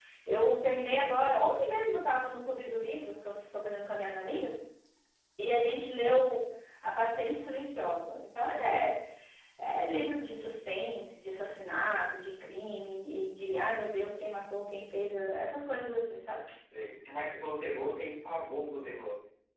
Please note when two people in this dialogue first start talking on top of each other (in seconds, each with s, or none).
none